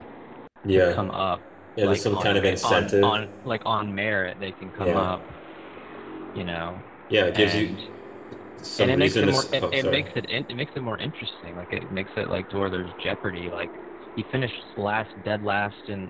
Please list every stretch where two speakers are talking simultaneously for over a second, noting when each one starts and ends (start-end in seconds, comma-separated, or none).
1.8-3.1, 8.8-10.1